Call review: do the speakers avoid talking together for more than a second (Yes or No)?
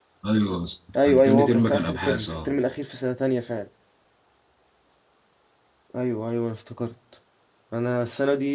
No